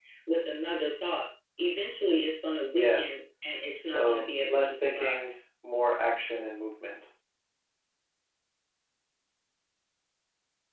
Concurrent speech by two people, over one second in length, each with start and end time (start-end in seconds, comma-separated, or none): 3.8-5.2